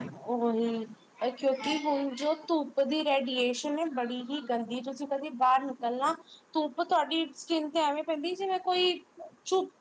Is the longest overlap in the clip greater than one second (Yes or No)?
No